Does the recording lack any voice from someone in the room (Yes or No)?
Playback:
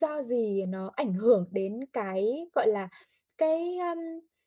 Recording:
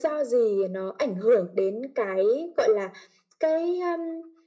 Yes